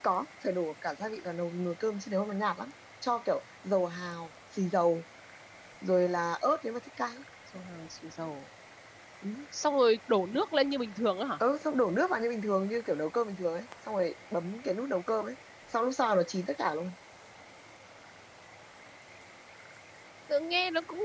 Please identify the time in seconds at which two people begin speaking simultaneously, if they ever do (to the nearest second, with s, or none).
none